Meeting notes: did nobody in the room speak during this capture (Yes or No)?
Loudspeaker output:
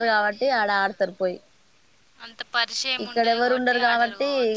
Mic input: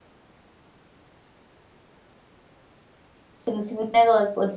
No